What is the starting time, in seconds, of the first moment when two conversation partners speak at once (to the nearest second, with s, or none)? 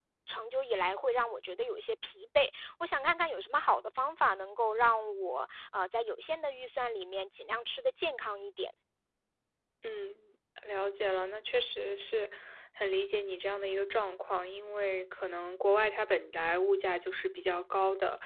none